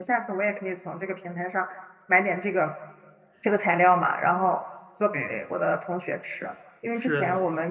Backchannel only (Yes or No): Yes